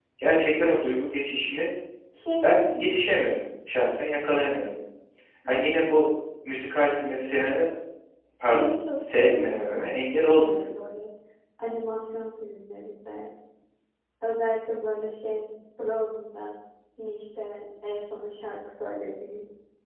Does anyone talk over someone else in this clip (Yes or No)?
Yes